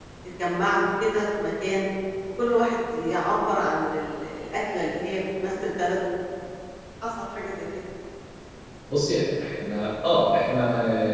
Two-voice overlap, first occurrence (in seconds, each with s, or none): none